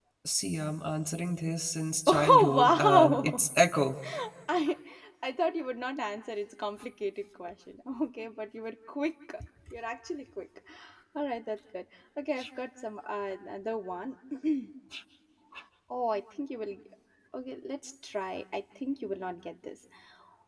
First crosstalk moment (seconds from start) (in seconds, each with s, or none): 2.1 s